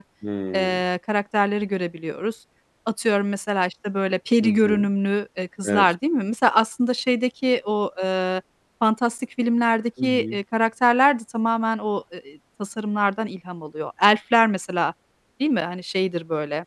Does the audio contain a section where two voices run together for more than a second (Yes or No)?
No